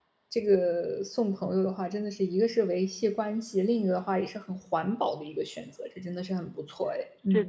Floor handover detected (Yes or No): Yes